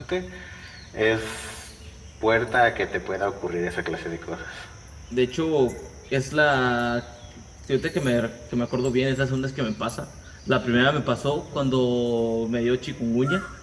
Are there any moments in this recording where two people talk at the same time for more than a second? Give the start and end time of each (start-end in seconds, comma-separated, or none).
none